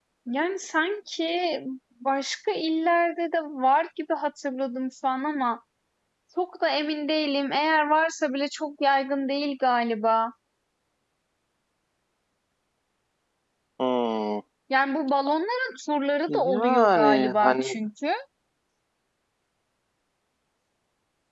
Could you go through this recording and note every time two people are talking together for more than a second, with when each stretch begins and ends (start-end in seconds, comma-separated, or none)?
16.3-17.8